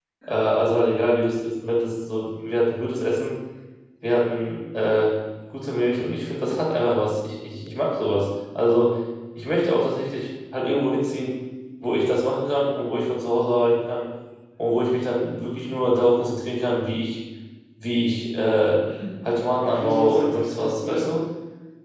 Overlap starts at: 19.6 s

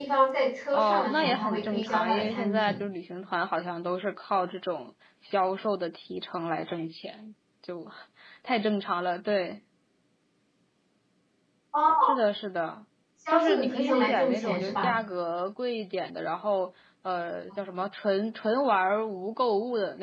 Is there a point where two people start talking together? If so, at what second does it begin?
0.7 s

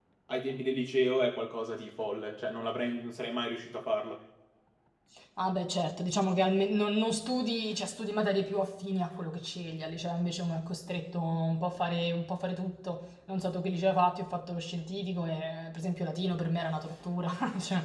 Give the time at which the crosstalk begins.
none

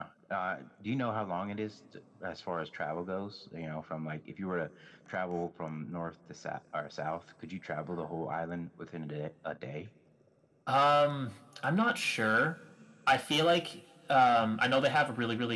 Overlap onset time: none

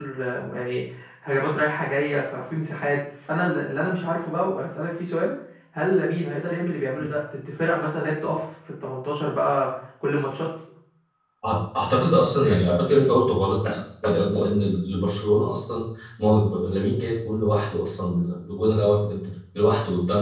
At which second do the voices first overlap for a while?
none

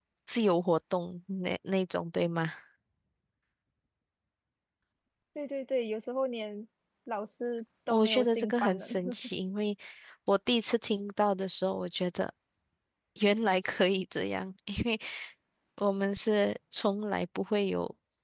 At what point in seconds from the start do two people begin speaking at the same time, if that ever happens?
7.9 s

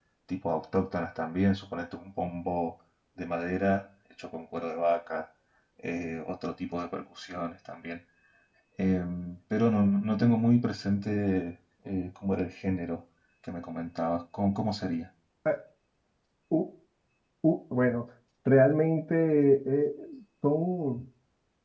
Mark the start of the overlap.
none

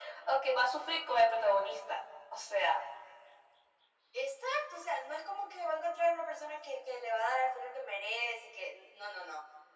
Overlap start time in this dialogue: none

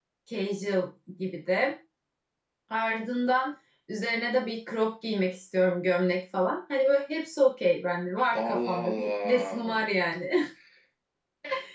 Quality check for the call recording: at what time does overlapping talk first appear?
8.3 s

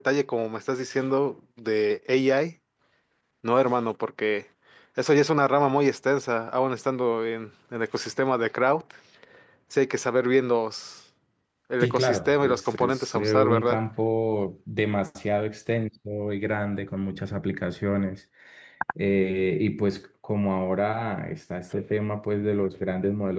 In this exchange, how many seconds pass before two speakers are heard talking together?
11.8 s

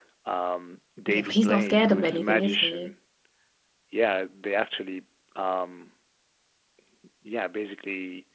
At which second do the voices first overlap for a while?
1.1 s

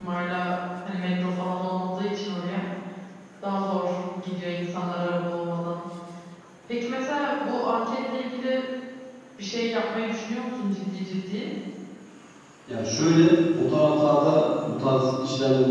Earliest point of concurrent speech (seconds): none

